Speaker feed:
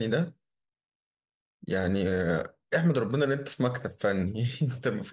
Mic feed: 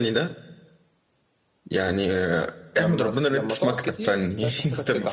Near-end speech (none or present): present